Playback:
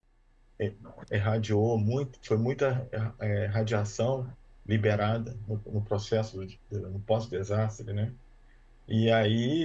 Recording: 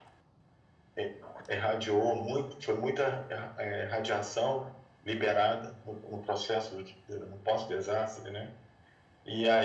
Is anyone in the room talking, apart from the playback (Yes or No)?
No